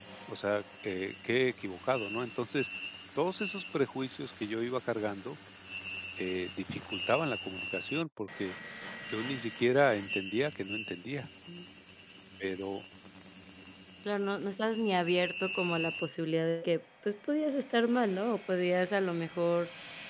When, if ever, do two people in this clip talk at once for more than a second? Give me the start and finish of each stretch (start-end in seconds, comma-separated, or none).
none